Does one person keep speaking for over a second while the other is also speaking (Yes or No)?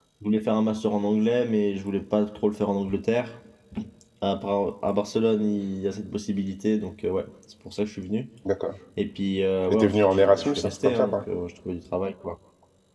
Yes